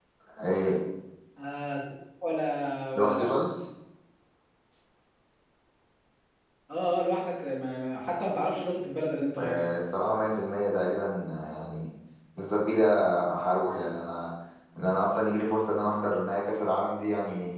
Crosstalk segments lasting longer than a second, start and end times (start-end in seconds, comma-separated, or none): none